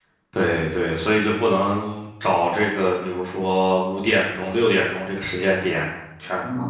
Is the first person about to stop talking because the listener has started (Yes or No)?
No